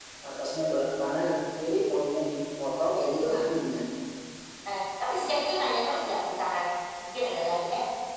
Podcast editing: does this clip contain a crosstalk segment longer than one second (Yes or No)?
No